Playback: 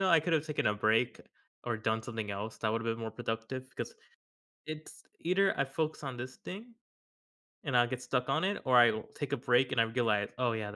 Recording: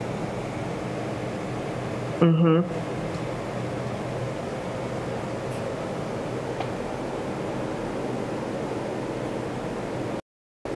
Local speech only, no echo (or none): Mhm.